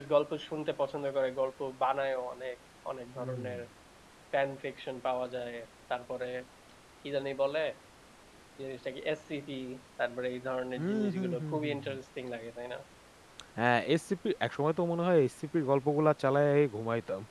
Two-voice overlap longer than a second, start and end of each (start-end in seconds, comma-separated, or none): 10.8-12.0